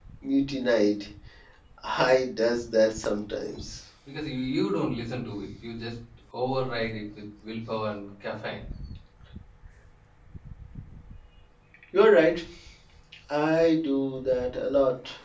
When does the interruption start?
none

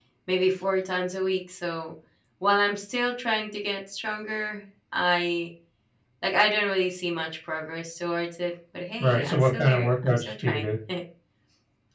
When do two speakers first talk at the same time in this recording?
9.0 s

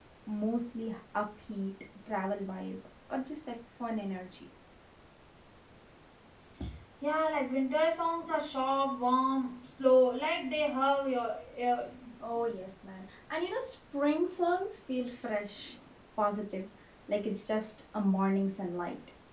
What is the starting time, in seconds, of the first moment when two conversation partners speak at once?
none

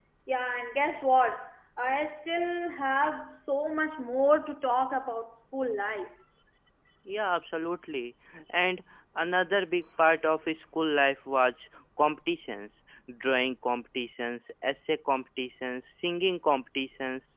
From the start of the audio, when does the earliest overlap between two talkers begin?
none

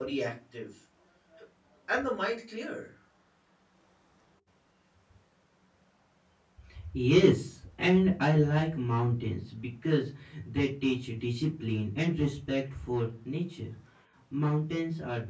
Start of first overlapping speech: none

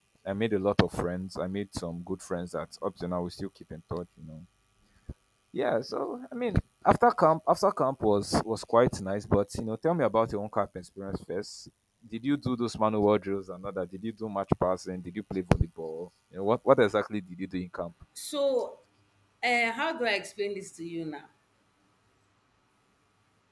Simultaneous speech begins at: none

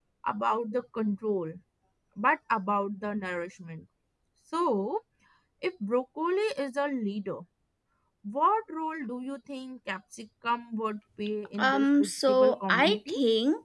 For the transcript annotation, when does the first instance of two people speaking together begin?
11.6 s

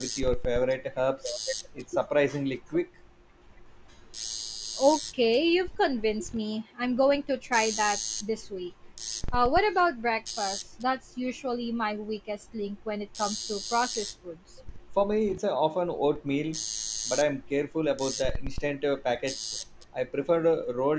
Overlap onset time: none

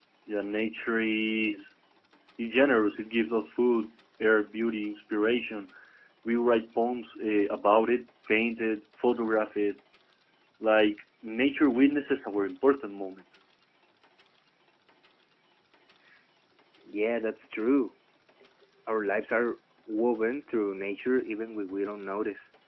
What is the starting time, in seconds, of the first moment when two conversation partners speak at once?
none

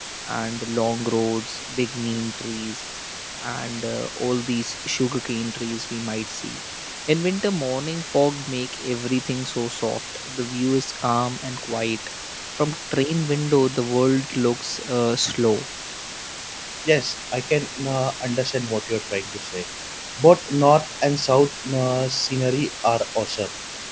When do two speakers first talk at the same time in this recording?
none

